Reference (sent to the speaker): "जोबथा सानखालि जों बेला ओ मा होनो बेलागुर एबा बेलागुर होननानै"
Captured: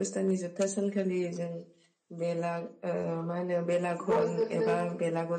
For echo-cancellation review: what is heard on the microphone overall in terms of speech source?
both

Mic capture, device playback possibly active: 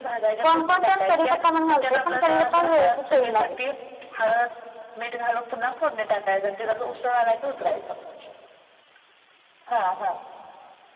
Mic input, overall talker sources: both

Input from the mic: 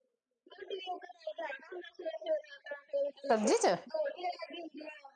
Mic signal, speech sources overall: both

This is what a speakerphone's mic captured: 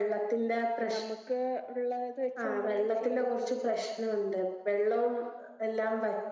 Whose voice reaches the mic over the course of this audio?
both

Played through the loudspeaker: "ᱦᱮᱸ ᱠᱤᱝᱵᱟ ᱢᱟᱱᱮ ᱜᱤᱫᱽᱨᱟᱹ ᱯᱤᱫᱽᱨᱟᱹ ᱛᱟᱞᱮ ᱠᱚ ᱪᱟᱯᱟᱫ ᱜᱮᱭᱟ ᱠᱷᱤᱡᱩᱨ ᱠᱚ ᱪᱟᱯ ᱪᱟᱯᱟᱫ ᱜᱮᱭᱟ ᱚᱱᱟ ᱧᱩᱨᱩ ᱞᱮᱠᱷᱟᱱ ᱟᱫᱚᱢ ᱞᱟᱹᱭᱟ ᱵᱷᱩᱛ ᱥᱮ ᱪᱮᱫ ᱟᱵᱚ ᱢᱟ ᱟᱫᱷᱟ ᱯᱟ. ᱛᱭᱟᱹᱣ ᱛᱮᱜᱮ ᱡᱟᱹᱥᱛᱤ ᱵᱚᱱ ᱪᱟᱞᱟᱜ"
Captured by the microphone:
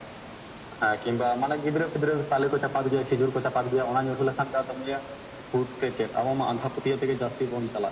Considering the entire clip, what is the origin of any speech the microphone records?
echo only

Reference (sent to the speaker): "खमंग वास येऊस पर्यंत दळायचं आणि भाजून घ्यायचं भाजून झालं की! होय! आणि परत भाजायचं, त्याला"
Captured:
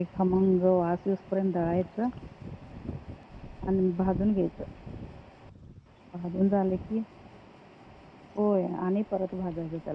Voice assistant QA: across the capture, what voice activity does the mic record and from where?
echo only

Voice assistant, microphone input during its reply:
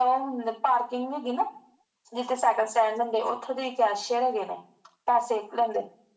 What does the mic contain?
echo only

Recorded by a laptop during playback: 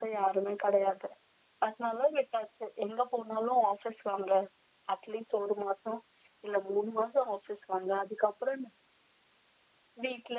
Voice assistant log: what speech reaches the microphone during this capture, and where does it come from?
echo only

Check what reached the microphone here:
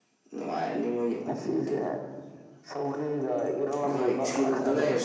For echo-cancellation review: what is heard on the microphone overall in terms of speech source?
both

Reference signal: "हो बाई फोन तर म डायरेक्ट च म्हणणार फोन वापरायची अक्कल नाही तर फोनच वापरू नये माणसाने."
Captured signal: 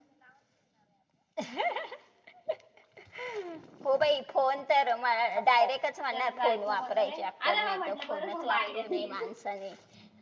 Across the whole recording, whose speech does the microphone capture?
both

